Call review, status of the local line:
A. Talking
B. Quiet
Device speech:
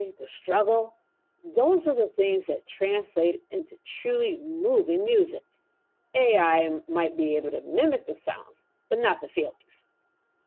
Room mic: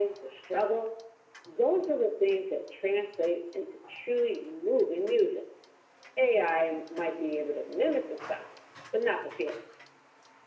B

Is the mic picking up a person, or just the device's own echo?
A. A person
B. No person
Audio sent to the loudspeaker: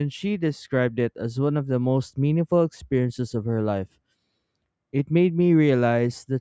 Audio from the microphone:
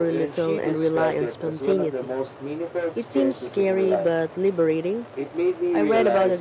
A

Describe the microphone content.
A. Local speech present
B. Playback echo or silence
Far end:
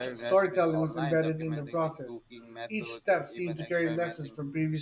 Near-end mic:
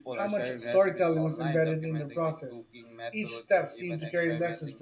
B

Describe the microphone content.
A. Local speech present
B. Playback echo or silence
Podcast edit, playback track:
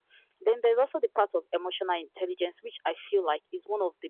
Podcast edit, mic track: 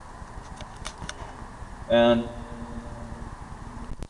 A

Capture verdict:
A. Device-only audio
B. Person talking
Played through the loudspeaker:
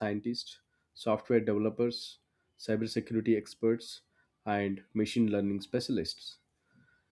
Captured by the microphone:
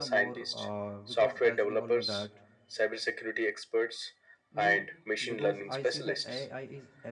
B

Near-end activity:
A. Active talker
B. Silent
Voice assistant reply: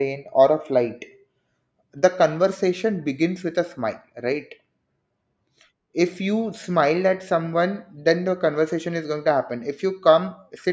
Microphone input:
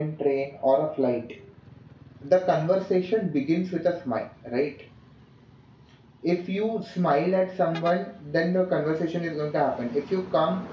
B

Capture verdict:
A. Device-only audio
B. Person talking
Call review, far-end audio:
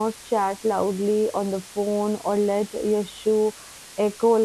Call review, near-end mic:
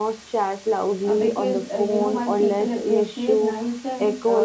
B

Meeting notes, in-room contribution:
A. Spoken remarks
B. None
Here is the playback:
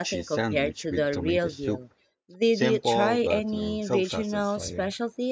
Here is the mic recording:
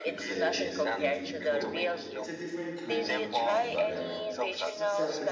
A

